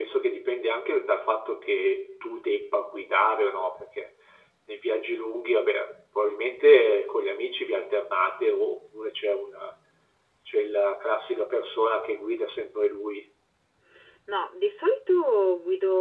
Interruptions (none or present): none